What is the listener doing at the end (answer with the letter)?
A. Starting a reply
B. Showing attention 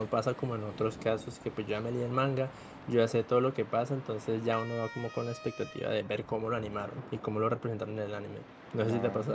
A